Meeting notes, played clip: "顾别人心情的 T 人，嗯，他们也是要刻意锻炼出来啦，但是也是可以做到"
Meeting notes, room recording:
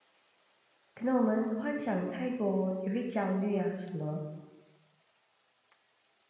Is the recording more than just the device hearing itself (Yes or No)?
Yes